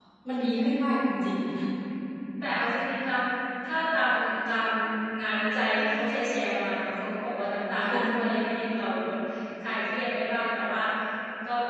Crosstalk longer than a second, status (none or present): none